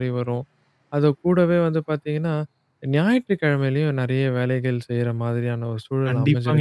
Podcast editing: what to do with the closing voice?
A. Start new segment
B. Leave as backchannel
A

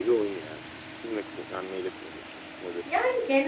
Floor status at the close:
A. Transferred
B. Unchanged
A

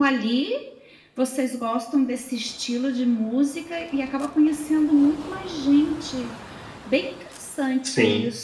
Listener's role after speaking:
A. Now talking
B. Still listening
B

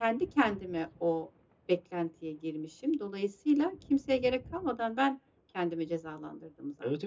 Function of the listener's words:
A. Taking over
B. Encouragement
A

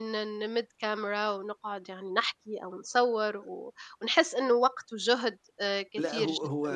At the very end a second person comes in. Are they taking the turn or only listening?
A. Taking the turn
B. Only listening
A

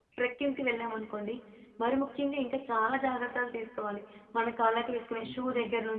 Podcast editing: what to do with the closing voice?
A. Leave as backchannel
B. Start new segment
A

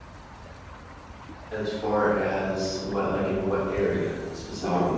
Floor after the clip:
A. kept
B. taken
B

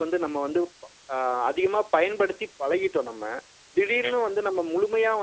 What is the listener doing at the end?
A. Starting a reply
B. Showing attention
B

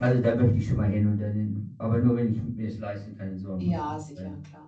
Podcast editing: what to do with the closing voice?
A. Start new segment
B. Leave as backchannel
A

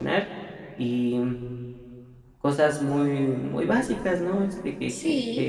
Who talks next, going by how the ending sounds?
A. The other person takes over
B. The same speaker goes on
A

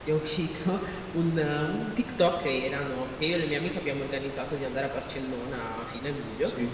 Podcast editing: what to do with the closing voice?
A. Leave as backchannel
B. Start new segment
A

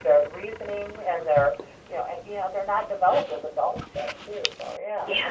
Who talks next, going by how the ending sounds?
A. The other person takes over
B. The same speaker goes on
A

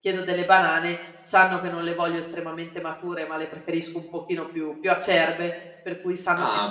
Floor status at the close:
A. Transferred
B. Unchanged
B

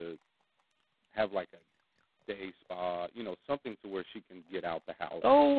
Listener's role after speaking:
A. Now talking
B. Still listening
A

